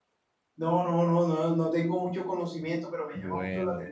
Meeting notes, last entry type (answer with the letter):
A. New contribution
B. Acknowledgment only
B